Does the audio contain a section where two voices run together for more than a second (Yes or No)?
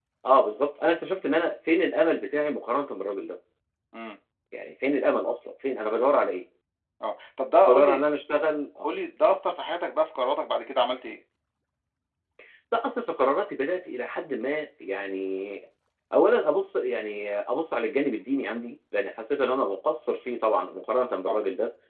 No